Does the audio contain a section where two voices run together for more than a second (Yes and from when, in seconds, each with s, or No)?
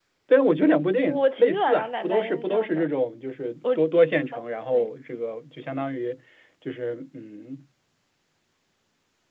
Yes, from 1.0 s